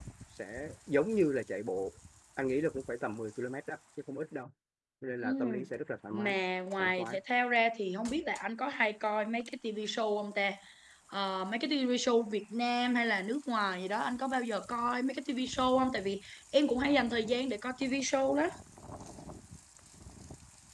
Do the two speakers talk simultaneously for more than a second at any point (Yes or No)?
No